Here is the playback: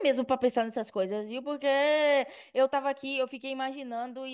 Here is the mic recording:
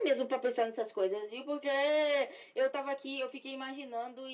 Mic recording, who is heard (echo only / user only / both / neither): echo only